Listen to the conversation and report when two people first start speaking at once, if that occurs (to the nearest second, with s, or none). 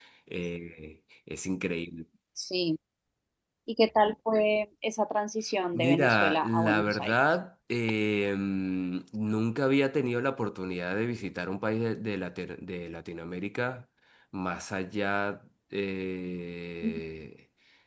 6 s